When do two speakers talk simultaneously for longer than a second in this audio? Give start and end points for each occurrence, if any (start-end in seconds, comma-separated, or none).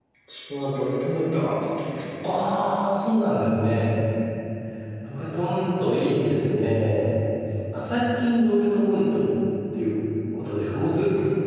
none